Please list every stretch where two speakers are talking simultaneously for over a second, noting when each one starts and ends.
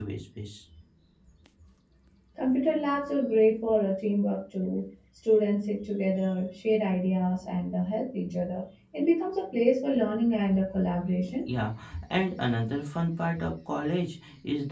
none

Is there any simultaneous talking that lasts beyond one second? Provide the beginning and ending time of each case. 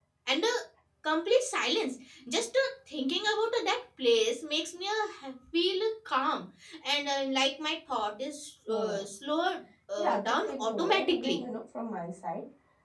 10.0-11.4

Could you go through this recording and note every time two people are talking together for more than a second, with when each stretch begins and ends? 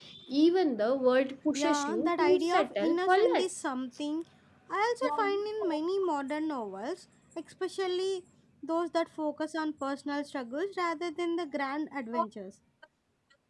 1.5-3.5

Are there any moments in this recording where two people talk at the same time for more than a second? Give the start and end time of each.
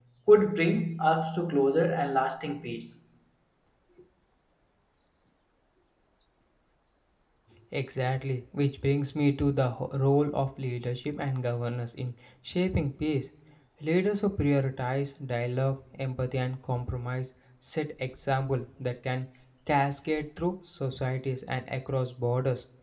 none

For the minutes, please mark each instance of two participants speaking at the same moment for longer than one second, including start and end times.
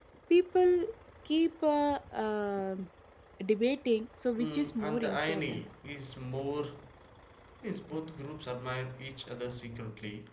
4.4-5.6

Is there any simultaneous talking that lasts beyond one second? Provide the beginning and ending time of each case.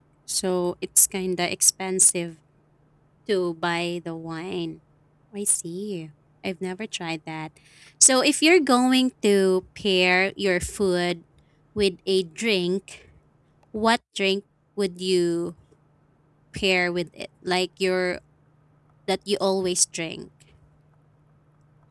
none

